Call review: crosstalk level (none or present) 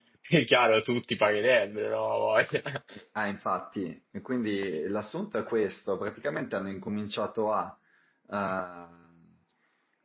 none